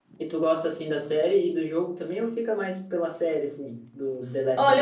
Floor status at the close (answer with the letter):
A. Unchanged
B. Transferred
B